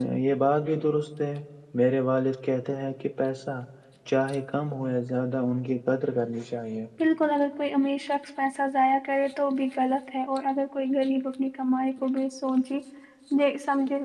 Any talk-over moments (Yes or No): No